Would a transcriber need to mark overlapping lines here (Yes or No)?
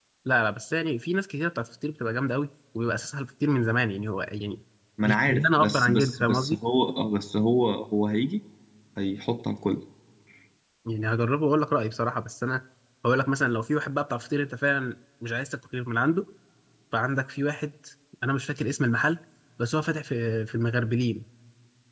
Yes